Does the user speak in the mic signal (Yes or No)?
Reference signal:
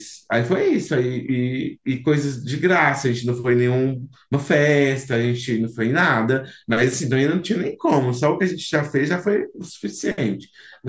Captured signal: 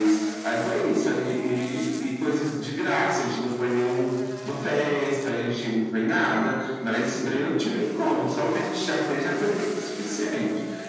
No